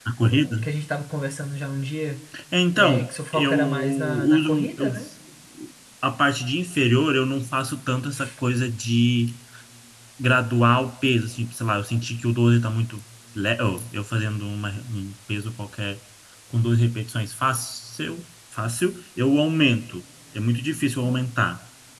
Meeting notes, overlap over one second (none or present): present